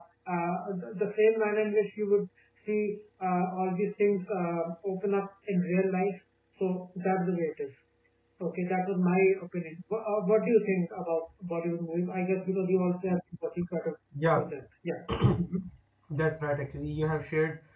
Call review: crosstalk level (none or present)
none